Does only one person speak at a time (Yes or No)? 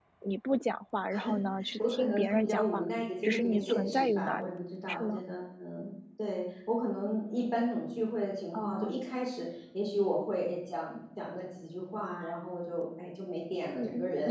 No